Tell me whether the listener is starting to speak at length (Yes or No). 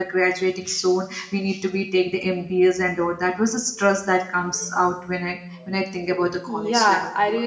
Yes